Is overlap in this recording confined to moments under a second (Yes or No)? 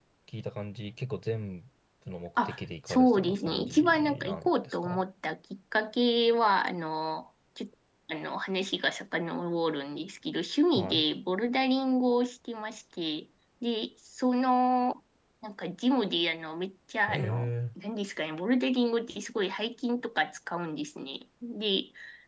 No